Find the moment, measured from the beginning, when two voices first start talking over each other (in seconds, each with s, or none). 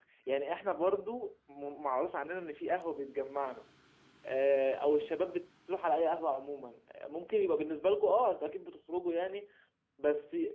none